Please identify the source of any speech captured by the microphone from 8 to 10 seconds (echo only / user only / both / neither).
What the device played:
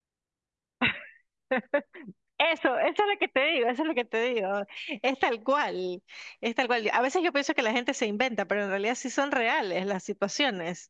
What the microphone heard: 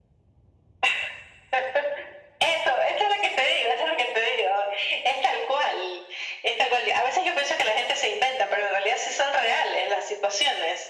echo only